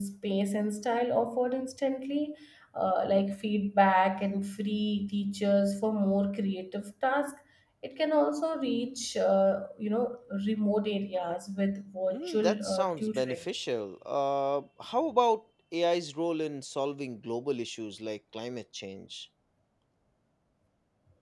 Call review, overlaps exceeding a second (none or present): present